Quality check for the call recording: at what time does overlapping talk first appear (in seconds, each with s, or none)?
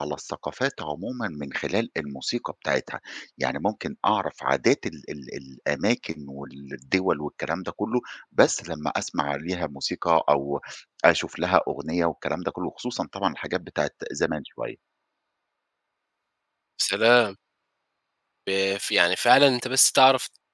none